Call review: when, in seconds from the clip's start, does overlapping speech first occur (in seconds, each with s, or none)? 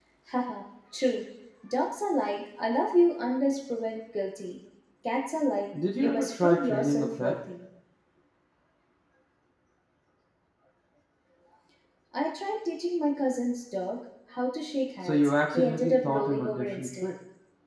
6.0 s